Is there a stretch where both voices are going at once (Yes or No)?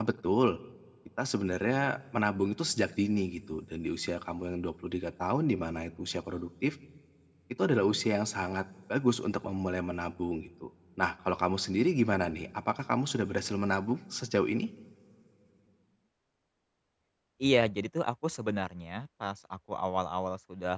No